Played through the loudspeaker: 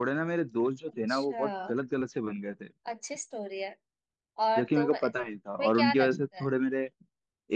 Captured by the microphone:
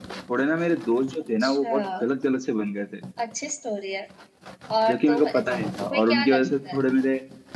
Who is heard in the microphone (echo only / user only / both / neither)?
echo only